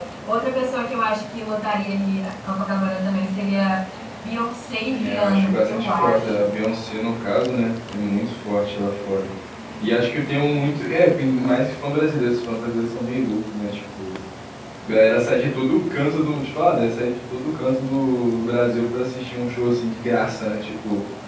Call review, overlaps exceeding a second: present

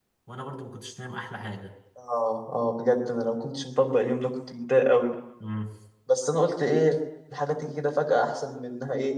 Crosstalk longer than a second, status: none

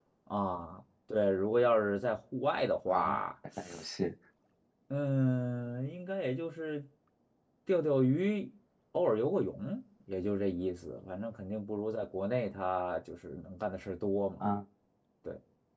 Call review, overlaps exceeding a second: none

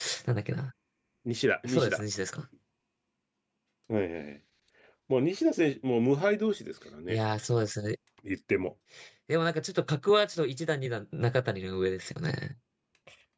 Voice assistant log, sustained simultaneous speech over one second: none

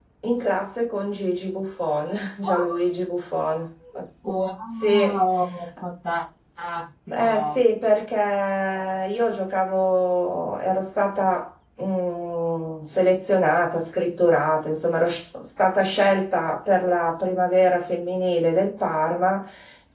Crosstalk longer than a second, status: none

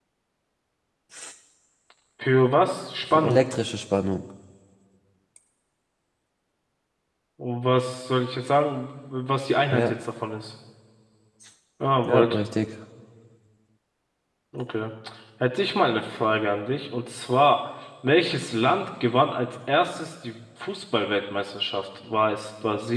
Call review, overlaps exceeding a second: none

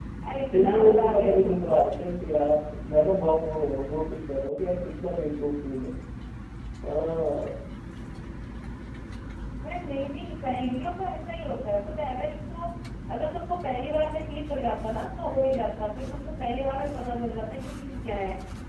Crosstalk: present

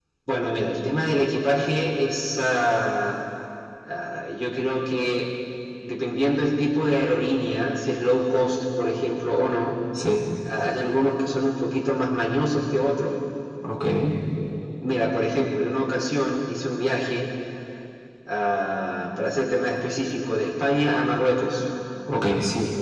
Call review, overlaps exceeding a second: none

